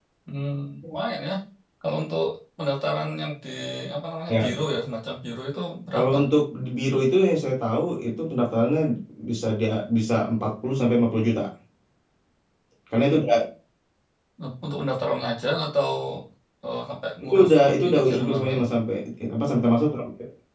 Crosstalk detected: Yes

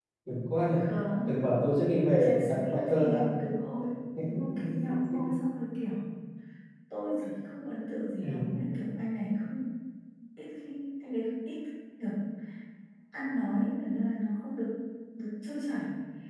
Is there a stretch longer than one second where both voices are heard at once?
Yes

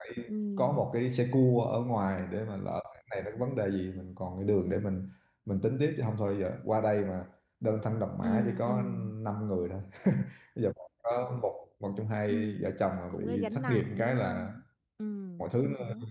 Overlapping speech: Yes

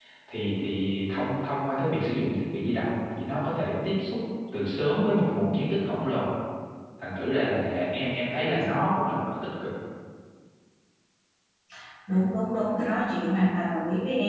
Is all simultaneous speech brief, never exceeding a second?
Yes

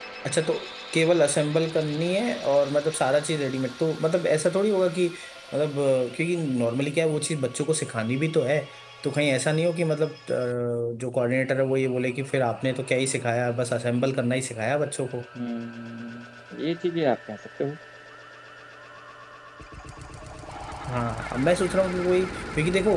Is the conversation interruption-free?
Yes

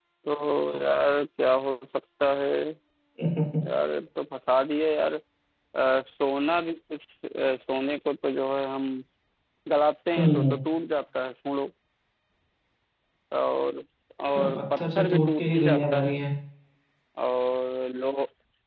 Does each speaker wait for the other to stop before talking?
No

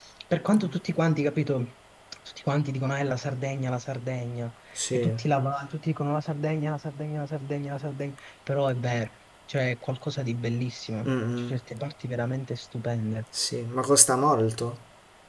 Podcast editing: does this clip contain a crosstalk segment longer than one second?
No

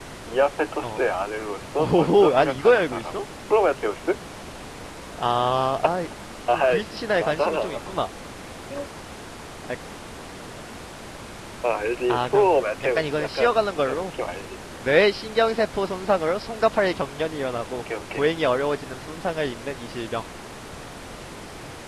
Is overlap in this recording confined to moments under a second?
No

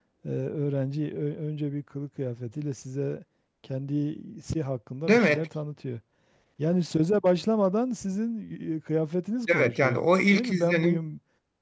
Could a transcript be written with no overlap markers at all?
No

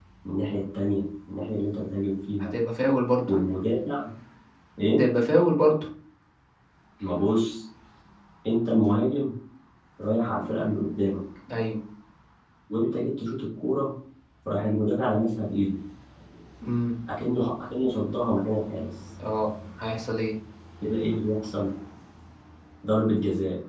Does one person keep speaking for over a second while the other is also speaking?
No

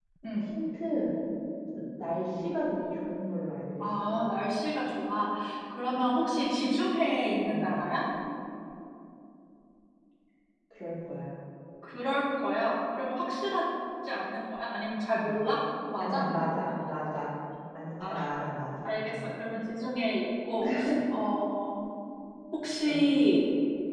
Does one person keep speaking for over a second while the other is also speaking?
No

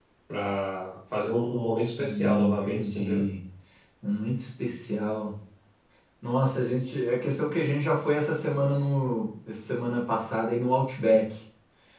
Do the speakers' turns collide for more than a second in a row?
Yes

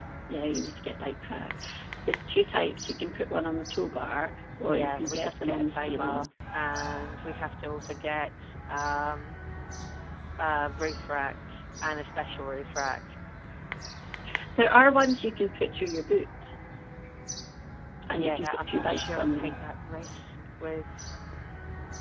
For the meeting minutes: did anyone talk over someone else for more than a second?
Yes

